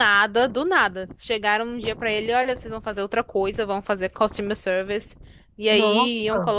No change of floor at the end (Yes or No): Yes